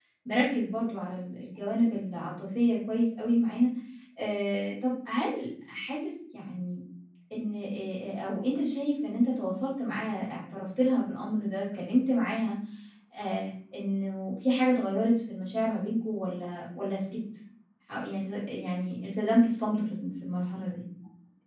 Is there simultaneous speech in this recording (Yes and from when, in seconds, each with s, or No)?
No